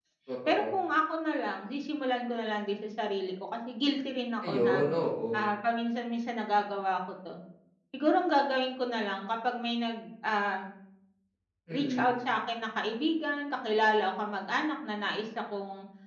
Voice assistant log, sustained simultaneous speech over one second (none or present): none